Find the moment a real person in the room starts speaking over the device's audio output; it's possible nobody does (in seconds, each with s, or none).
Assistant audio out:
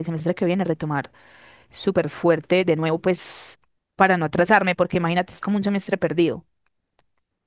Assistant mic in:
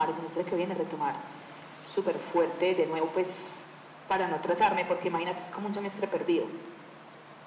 none